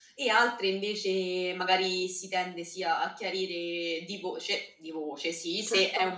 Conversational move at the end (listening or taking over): listening